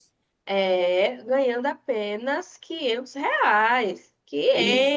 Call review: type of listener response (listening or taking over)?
taking over